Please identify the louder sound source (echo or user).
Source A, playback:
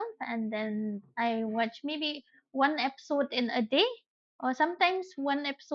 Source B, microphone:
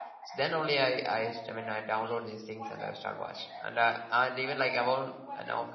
user